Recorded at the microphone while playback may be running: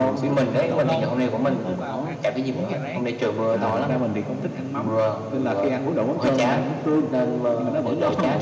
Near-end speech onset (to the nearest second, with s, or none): 1 s